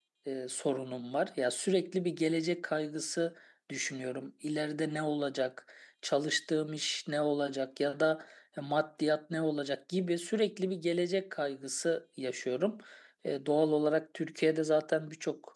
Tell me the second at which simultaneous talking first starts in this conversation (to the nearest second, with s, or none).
none